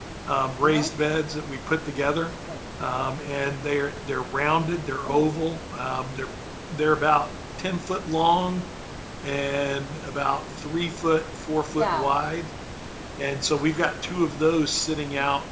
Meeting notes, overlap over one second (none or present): none